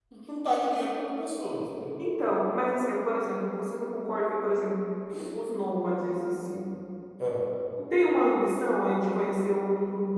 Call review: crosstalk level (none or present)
none